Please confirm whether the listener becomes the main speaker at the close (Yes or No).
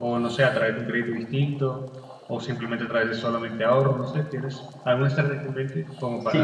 Yes